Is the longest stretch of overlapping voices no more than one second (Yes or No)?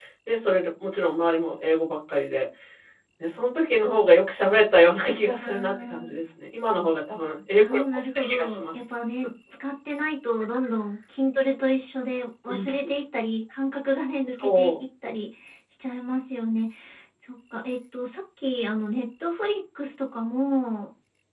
No